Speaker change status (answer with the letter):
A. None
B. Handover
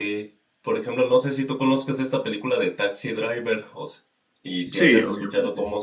A